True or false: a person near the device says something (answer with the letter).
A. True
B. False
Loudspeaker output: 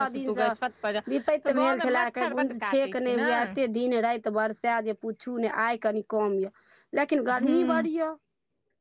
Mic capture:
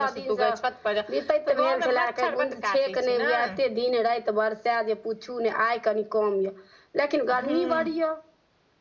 B